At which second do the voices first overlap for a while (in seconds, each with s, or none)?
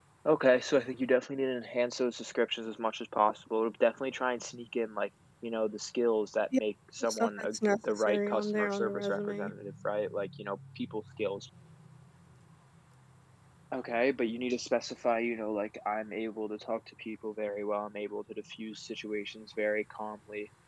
7.0 s